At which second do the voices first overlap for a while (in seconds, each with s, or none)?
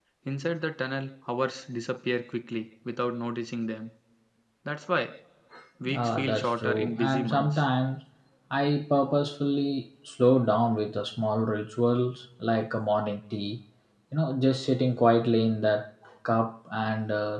5.9 s